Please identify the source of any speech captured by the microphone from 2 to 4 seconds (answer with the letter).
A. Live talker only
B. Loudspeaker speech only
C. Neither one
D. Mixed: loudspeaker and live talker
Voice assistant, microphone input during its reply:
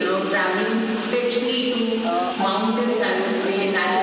D